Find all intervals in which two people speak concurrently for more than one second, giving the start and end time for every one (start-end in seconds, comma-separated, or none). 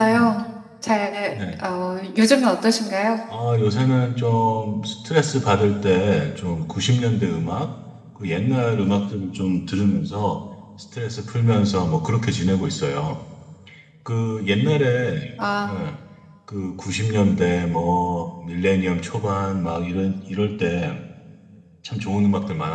none